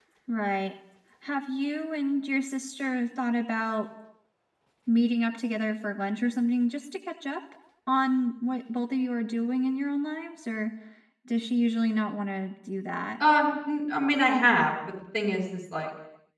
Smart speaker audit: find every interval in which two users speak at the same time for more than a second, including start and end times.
none

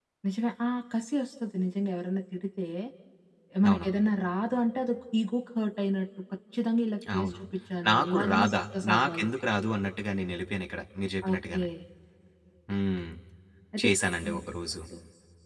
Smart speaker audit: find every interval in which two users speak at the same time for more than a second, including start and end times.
7.9-9.3

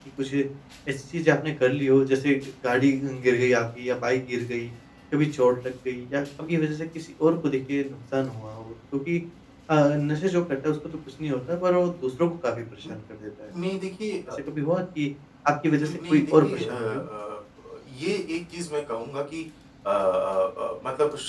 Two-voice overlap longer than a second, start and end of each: 15.8-17.0

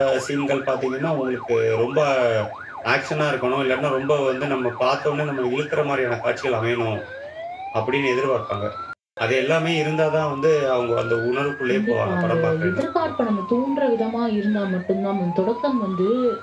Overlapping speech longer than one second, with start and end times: 11.7-13.1

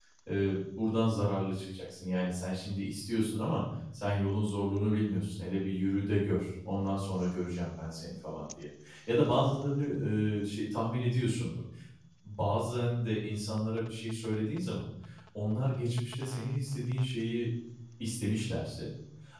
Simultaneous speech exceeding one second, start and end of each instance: none

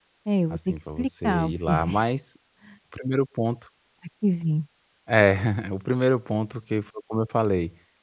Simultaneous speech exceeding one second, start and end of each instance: 0.5-1.9

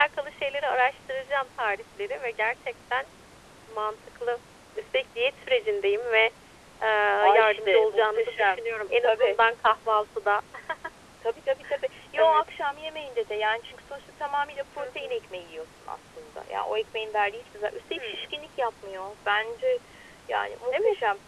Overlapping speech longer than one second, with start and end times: 7.3-8.6

